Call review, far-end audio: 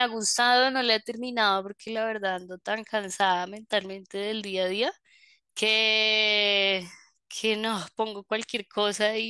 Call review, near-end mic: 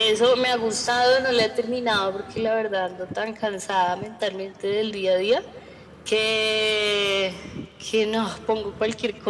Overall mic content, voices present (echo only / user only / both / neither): echo only